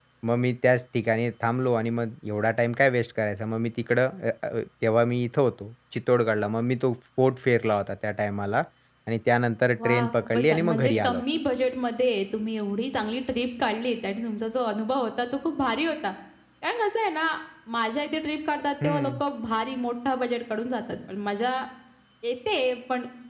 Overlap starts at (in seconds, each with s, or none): 9.8 s